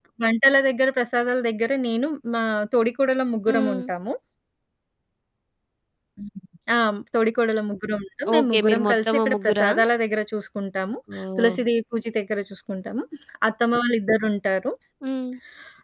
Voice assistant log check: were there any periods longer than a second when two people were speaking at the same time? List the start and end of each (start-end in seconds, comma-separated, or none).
8.3-9.7